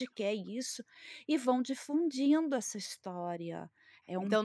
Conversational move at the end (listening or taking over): taking over